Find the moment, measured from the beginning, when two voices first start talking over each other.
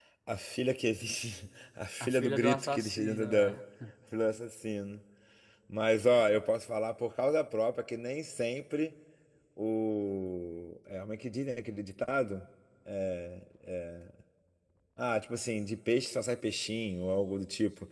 2.0 s

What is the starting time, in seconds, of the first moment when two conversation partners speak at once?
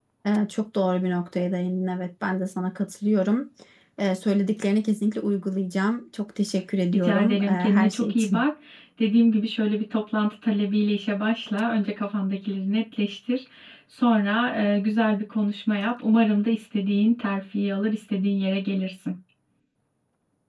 6.9 s

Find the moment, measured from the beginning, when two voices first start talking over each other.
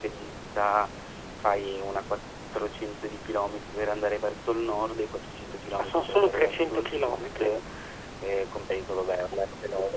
5.8 s

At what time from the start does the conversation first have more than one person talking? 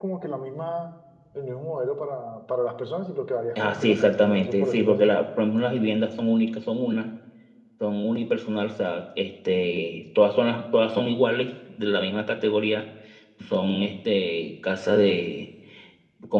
3.5 s

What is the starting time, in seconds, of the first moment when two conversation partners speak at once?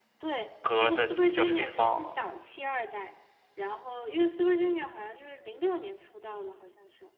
0.8 s

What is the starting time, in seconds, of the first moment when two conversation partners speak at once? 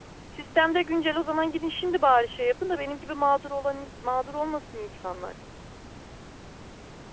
none

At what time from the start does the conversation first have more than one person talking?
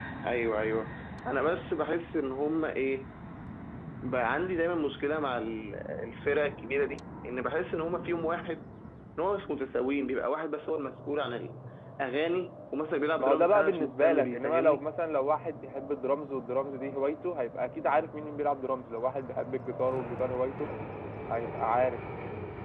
13.2 s

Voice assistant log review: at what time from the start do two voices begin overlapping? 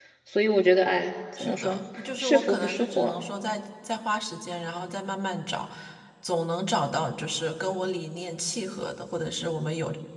1.4 s

